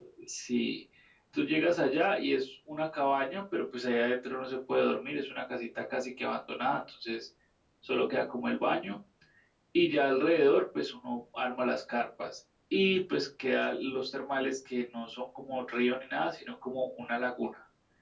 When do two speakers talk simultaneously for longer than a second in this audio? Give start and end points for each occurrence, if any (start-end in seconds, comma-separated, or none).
none